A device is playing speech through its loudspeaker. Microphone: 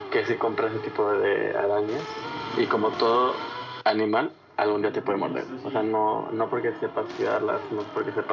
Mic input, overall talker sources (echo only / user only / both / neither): both